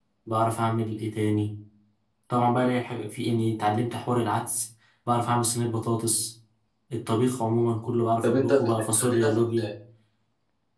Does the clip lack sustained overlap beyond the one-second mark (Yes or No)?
No